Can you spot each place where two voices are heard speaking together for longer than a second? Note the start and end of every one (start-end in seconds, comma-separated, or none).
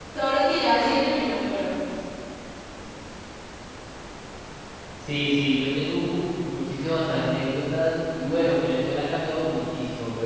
none